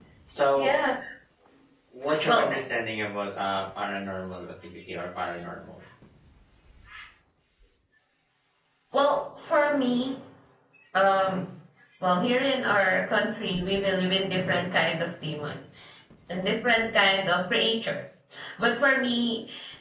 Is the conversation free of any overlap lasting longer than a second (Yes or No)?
Yes